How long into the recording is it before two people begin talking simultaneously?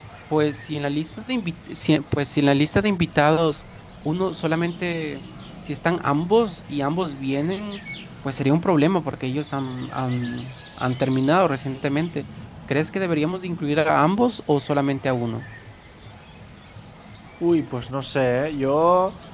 none

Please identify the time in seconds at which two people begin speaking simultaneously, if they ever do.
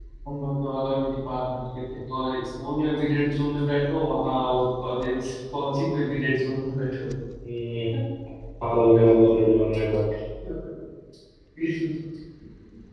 none

